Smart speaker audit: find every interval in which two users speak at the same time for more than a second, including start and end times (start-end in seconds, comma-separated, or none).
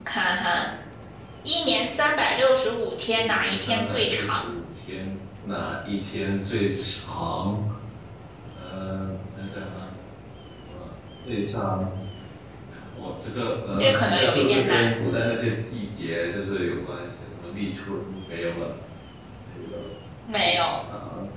3.1-4.5, 13.8-15.0